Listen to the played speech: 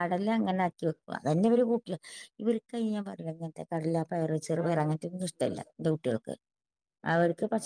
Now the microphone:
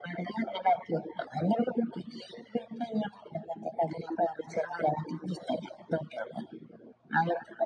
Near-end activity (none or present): none